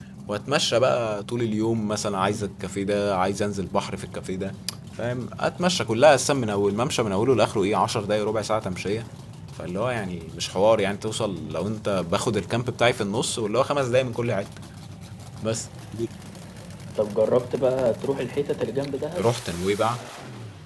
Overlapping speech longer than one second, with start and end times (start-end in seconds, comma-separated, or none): none